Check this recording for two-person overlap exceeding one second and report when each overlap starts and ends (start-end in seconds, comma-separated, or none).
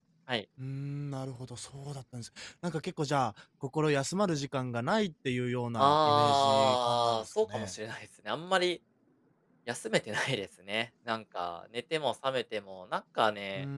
5.8-7.7